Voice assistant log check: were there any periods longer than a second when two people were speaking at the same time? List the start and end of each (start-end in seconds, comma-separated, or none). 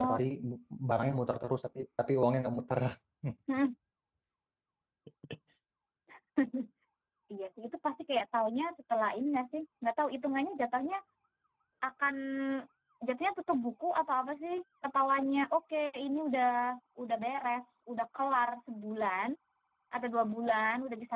none